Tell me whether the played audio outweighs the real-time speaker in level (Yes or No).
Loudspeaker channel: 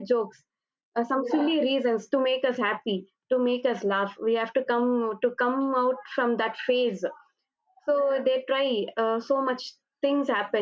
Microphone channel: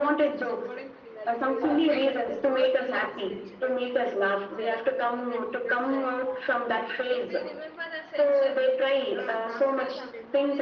Yes